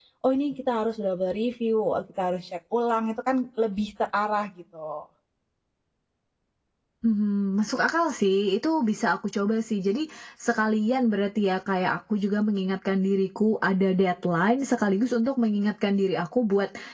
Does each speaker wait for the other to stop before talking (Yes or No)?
Yes